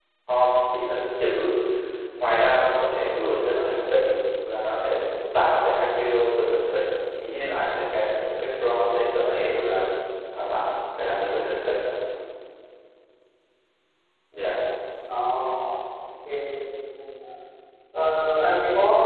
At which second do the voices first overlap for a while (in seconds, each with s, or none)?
none